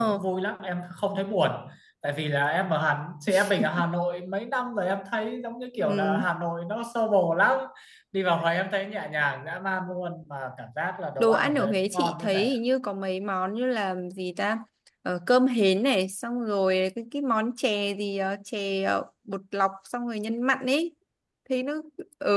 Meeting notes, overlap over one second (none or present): present